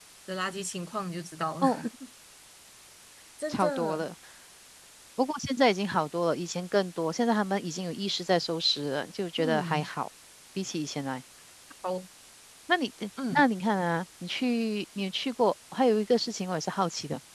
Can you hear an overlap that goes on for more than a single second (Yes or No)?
No